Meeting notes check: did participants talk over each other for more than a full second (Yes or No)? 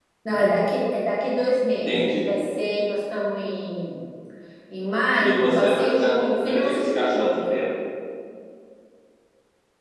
Yes